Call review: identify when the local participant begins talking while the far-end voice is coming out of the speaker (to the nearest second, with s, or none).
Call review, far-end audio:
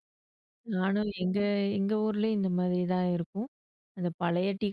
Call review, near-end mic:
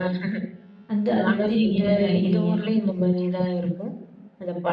1 s